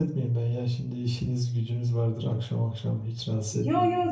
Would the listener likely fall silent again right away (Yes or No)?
No